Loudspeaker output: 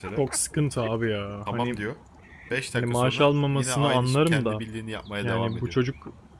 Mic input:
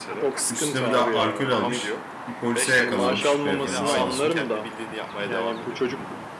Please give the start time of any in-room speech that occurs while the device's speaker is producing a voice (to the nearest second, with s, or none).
0 s